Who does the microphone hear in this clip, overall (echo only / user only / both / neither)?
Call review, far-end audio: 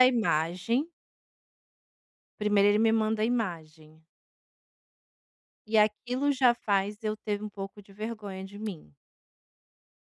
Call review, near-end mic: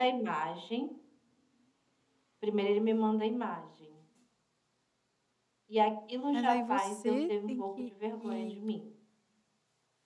both